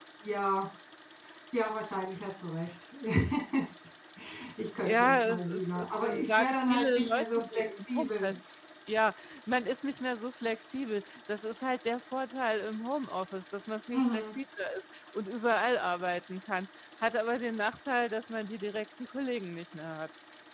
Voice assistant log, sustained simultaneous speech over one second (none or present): present